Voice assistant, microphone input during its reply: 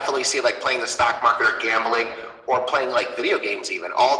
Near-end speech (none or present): none